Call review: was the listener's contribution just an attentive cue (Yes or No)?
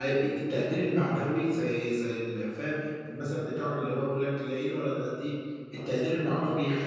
Yes